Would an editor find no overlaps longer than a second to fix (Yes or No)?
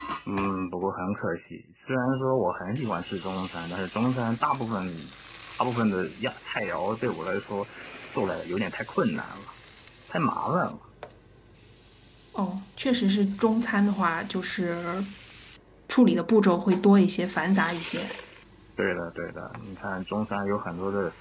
Yes